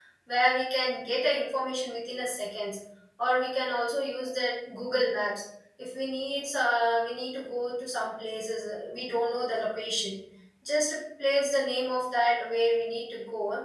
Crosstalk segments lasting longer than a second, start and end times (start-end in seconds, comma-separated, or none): none